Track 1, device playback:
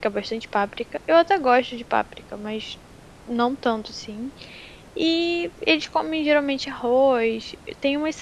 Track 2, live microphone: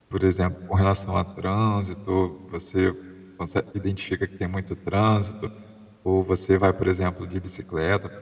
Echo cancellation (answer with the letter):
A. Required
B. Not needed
B